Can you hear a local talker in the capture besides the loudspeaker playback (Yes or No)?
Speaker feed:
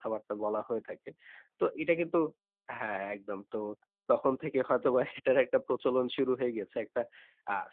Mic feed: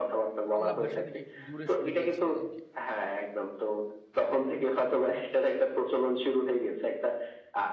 Yes